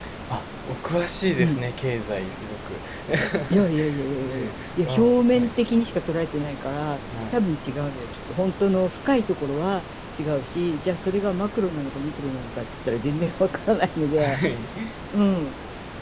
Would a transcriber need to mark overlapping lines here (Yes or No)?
Yes